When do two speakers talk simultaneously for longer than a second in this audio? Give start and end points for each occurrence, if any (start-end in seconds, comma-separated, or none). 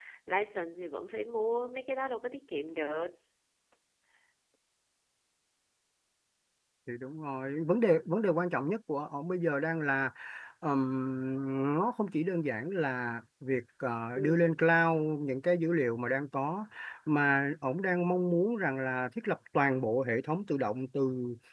none